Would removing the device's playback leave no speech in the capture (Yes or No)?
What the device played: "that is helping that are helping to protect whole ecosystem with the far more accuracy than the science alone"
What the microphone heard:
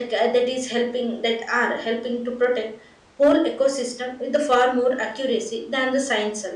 Yes